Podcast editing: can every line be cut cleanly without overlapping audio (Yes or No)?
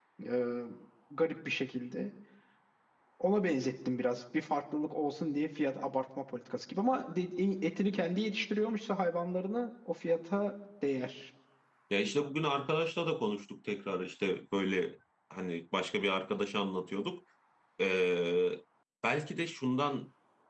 Yes